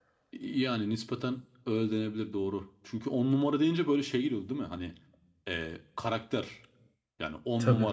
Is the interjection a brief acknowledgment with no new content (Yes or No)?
Yes